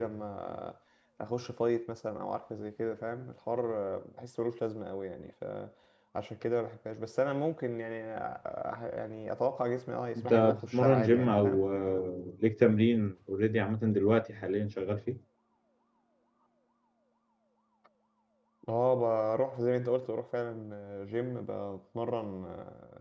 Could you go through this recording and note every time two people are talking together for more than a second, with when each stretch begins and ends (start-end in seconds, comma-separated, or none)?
10.2-11.6